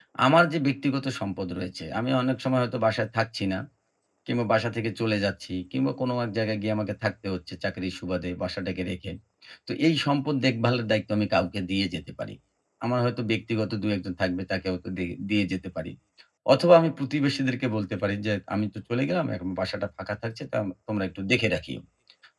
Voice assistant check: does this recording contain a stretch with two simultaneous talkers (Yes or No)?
No